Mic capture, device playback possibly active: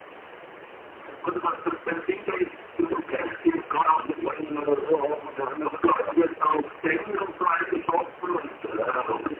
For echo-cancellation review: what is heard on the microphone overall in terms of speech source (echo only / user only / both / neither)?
echo only